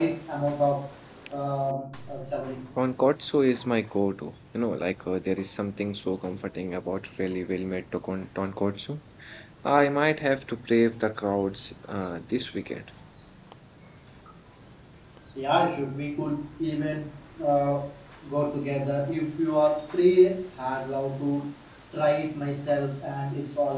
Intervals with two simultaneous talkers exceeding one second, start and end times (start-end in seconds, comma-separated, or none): none